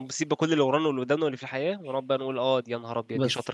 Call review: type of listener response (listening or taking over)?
taking over